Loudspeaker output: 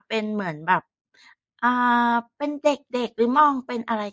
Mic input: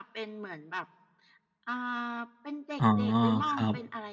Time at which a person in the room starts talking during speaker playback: 3 s

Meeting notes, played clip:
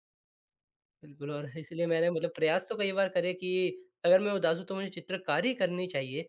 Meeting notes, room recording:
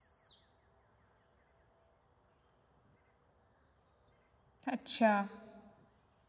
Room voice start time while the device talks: 5 s

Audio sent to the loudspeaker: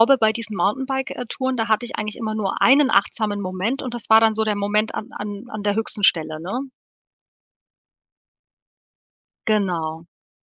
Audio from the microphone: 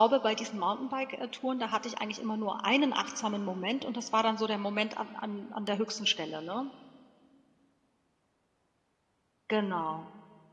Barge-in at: none

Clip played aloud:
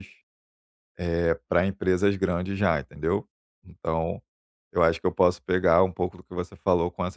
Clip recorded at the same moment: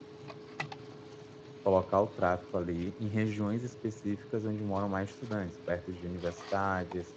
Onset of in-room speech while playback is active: 2 s

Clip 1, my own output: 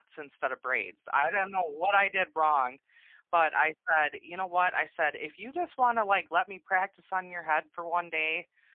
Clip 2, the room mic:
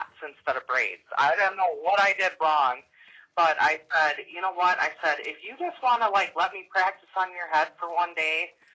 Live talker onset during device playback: none

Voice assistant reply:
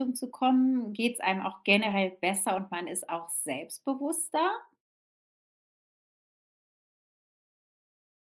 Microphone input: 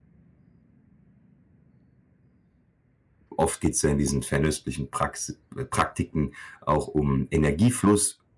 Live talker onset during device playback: 3 s

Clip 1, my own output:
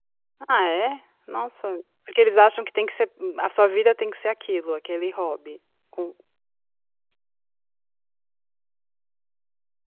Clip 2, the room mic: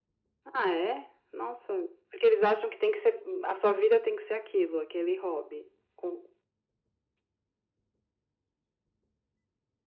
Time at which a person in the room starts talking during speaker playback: none

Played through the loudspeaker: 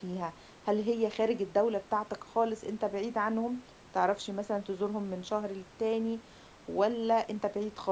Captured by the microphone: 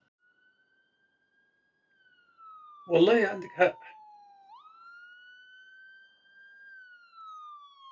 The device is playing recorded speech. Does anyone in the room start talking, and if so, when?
3 s

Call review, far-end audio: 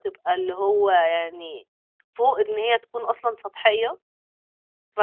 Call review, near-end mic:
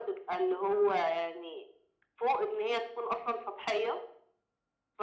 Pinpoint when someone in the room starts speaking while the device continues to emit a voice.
none

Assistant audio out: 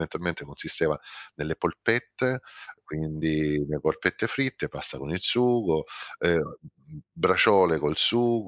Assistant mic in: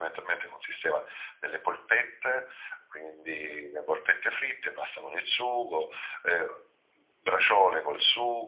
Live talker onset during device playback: none

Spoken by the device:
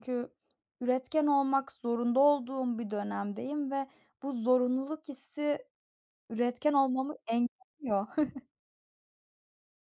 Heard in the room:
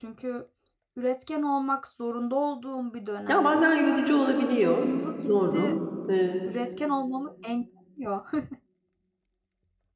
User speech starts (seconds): 3 s

